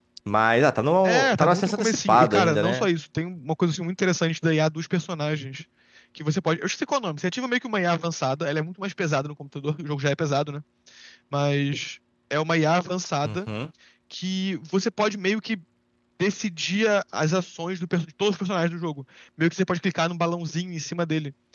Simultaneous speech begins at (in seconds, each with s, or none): 1.0 s